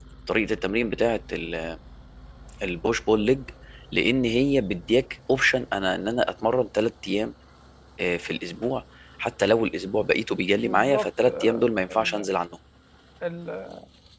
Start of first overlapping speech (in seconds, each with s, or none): 10.6 s